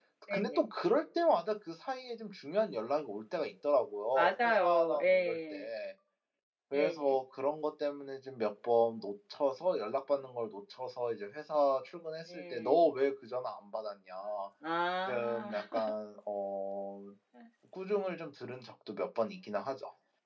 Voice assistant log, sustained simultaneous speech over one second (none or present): present